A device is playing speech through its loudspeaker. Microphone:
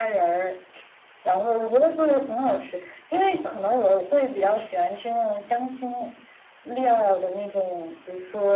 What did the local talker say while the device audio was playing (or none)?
none